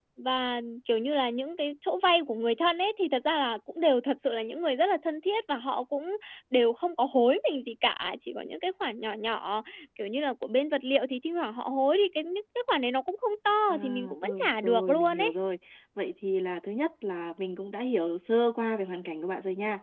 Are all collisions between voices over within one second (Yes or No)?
No